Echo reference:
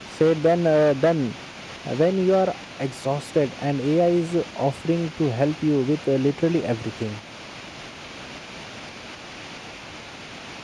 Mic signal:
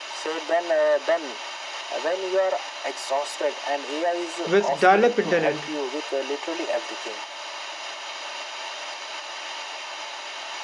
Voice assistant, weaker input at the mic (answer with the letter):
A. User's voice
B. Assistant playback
B